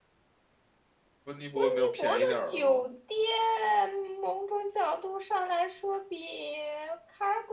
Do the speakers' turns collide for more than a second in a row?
Yes, from 1.6 s

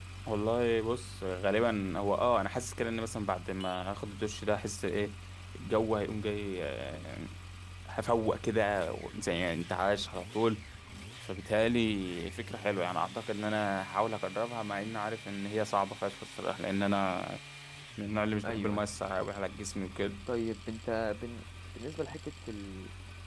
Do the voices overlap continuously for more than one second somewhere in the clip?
No

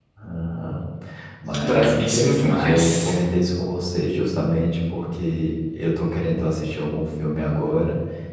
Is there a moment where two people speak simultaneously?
Yes, from 1.6 s

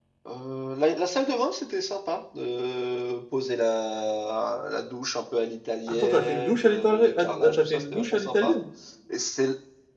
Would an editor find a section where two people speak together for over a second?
Yes, from 5.9 s

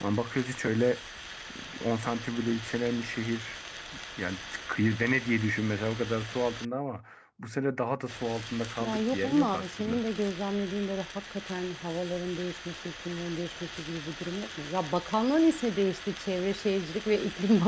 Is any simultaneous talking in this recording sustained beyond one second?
Yes, from 8.8 s

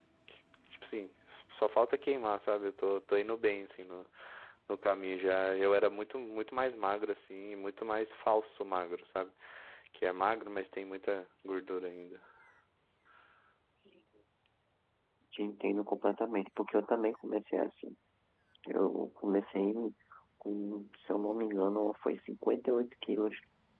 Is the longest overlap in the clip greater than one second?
No

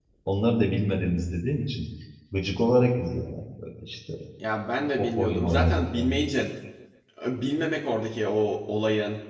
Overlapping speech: Yes, from 4.8 s

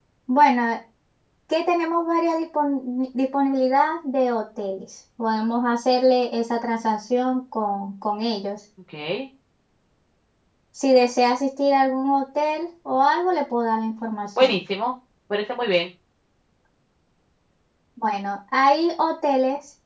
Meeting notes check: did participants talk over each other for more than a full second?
No

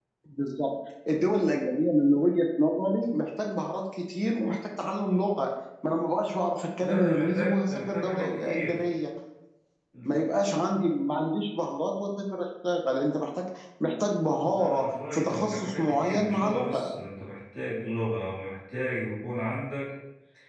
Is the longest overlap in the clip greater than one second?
Yes, from 6.8 s

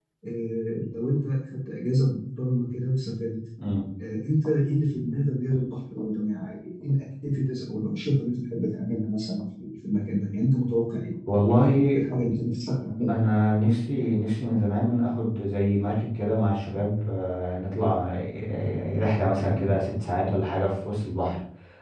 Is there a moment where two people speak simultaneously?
No

